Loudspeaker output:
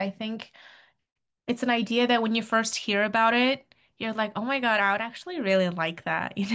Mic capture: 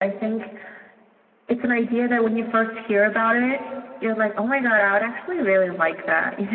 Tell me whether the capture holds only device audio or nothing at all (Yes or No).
Yes